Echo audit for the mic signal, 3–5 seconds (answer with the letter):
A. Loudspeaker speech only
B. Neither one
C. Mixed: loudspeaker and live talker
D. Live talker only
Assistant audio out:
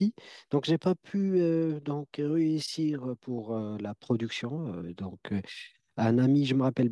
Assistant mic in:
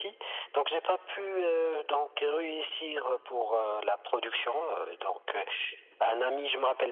A